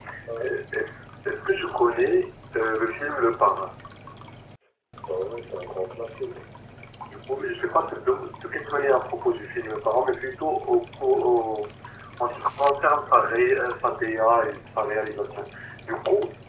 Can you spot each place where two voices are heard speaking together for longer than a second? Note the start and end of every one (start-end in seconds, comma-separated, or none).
none